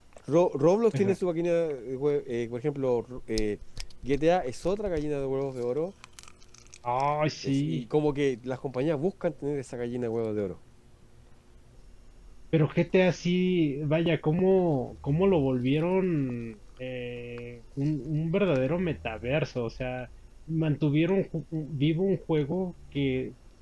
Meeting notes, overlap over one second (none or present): none